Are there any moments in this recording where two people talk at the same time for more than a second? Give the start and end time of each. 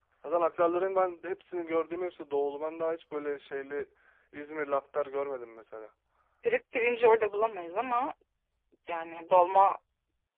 none

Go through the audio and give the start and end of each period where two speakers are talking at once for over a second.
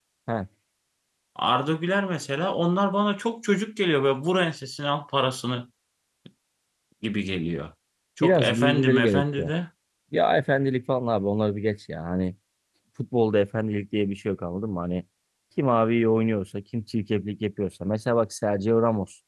8.2-9.5

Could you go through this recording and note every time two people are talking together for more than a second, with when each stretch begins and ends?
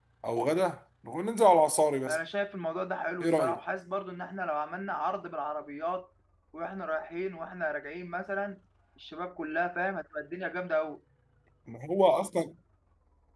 none

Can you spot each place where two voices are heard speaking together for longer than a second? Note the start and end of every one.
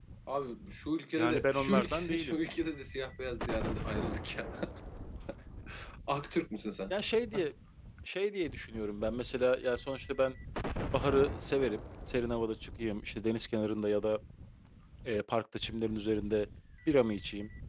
1.2-2.4

